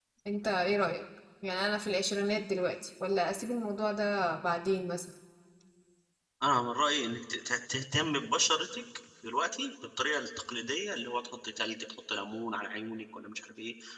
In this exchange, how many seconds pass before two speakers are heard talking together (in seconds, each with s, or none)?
none